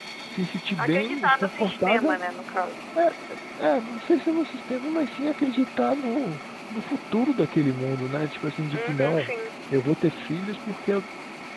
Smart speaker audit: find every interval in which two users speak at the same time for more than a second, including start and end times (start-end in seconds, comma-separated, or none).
0.8-2.2